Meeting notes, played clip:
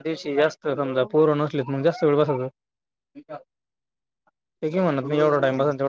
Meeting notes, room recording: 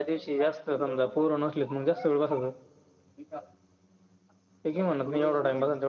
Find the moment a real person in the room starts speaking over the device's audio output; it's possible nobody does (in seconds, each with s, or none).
none